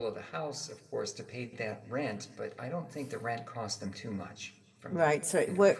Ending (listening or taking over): taking over